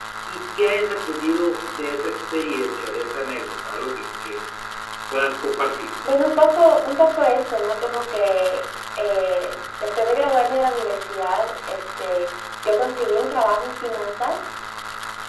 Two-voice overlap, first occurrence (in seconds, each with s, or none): none